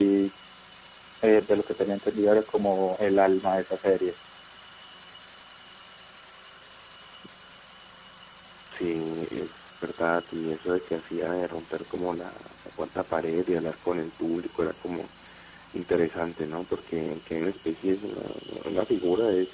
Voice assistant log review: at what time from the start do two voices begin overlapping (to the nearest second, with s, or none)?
none